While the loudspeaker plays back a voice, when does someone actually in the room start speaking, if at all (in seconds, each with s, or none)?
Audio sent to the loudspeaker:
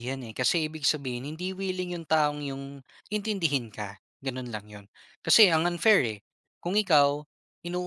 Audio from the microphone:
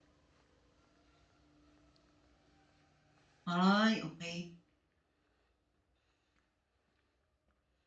3.4 s